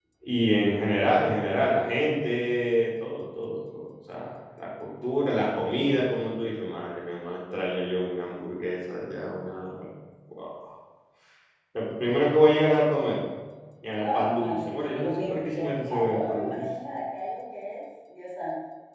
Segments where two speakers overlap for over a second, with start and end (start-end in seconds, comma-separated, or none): 14.0-16.6